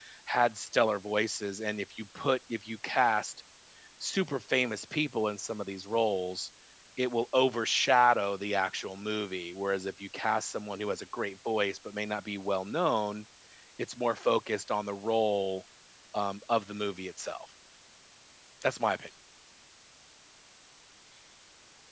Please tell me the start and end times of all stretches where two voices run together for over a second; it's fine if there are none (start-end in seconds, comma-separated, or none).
none